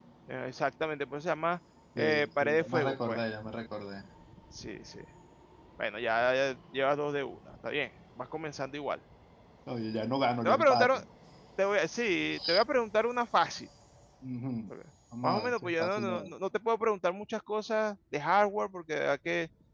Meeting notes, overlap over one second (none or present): present